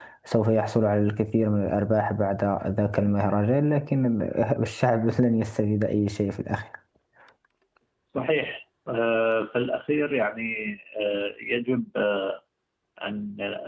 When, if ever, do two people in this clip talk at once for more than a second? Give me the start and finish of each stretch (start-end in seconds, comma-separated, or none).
none